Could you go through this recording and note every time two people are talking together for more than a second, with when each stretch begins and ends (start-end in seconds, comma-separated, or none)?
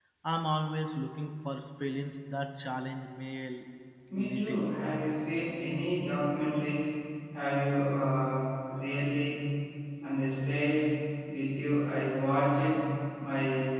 none